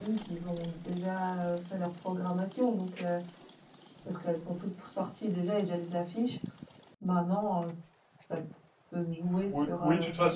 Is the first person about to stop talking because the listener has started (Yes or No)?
Yes